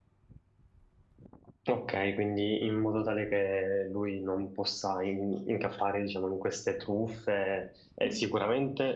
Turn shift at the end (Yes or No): No